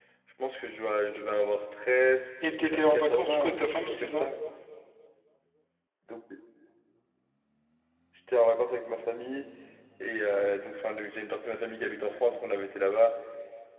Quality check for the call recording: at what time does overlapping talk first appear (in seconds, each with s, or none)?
2.4 s